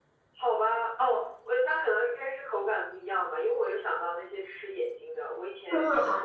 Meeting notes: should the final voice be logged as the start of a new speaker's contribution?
No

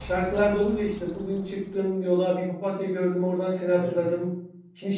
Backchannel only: Yes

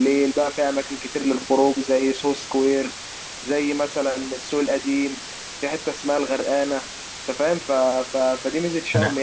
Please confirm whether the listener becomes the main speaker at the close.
No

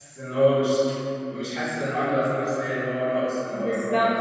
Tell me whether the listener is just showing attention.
No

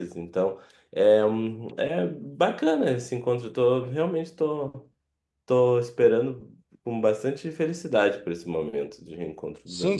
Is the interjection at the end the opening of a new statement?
Yes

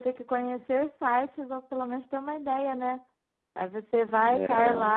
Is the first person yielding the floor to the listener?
No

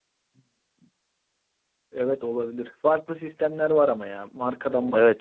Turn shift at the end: Yes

